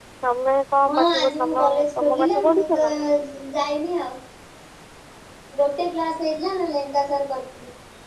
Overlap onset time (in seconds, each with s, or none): 0.9 s